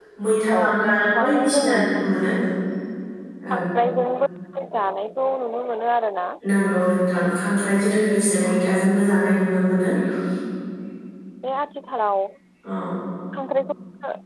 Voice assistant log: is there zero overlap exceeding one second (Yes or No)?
No